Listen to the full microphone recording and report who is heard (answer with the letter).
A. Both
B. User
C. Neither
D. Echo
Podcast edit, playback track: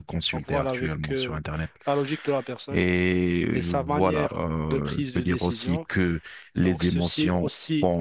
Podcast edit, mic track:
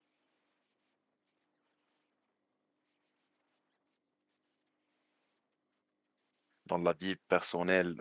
B